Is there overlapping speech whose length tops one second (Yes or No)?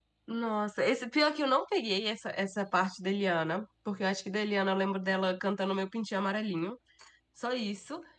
No